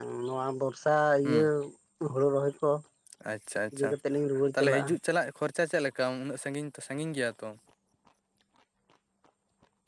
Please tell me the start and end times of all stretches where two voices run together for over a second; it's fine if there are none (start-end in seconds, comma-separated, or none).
none